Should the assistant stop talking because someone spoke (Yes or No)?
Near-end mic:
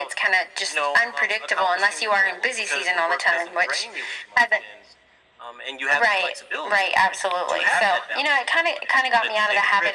No